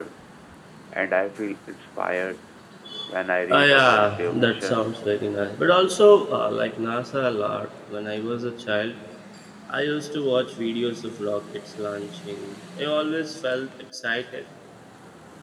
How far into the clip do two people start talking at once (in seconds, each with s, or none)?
3.5 s